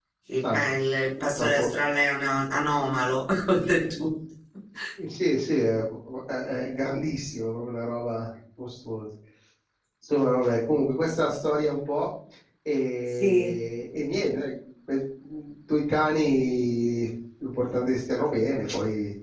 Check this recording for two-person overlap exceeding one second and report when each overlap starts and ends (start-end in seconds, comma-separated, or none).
none